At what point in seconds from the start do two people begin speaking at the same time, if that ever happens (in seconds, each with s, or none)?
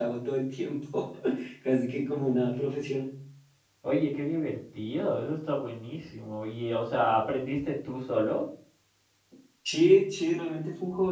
none